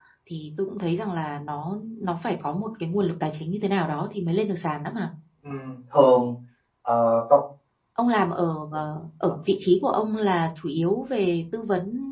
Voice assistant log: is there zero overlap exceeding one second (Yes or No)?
Yes